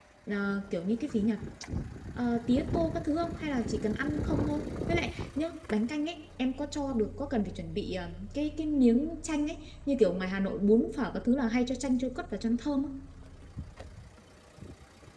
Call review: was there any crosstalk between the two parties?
No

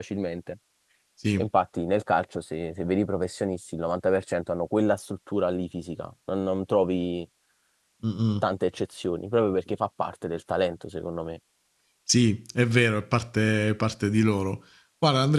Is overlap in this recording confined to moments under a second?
Yes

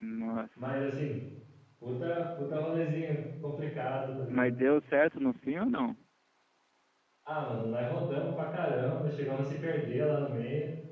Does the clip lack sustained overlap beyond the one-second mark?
Yes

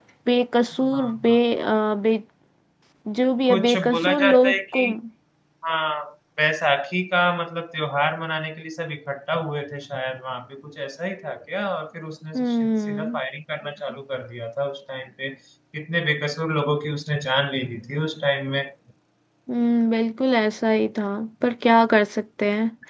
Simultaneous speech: Yes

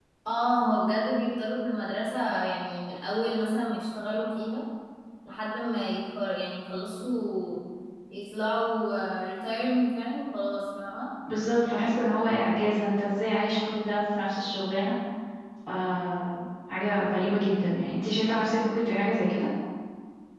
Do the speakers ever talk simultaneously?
No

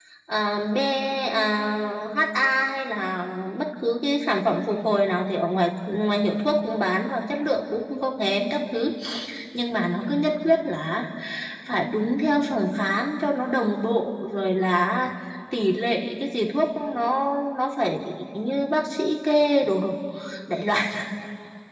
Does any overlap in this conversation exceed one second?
No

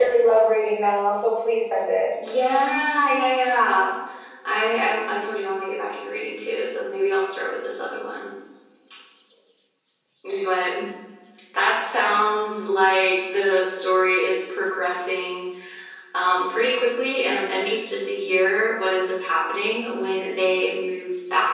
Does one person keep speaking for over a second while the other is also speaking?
No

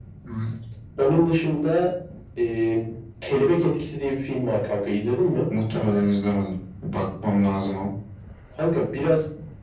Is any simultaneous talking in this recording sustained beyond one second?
No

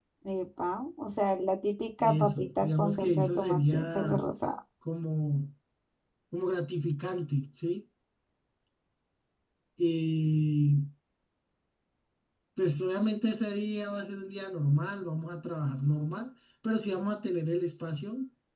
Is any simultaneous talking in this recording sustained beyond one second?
Yes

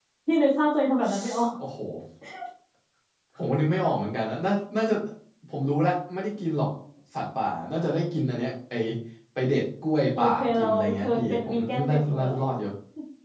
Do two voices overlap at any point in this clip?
Yes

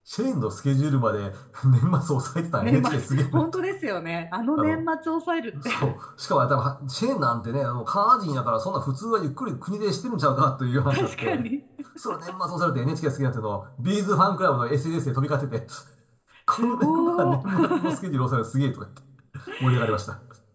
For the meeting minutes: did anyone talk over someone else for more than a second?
Yes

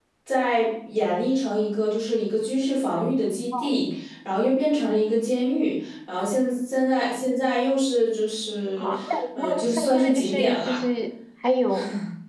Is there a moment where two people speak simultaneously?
Yes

